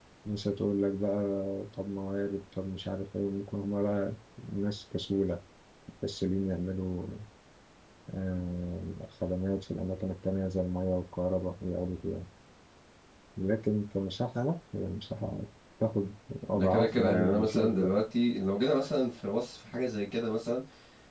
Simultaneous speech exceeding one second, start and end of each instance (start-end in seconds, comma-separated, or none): 16.5-17.9